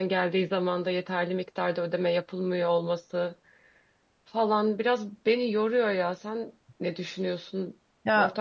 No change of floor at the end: No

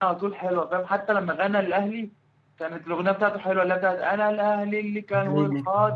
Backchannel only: Yes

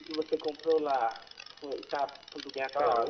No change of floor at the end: No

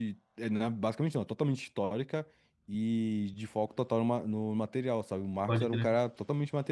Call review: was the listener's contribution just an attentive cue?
Yes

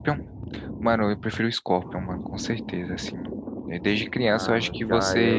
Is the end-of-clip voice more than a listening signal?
Yes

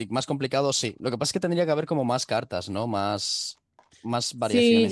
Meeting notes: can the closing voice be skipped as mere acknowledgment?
No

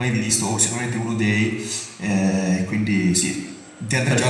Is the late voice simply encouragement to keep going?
Yes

